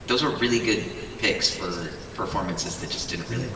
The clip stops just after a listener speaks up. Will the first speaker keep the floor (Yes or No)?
Yes